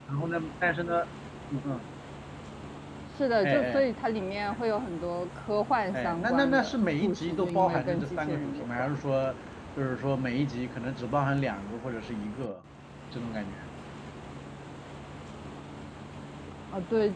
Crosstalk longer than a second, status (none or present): present